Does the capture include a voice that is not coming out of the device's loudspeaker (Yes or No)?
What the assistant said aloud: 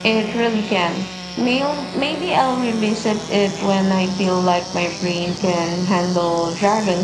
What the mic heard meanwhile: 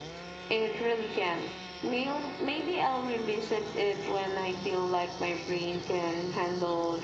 No